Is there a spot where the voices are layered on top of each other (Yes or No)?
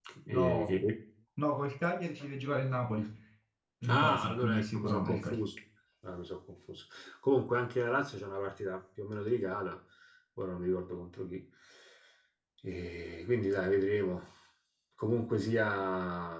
Yes